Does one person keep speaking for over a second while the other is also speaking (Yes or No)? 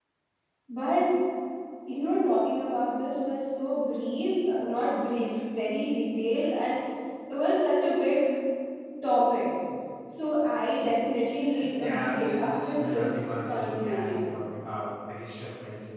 Yes